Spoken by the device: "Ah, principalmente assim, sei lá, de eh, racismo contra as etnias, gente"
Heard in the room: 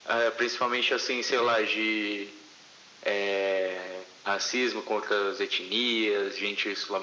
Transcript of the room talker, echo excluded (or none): none